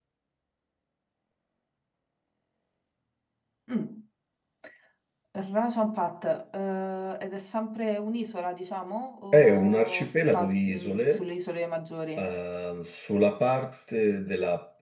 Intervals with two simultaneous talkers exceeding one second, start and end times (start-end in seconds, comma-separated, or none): 9.3-11.3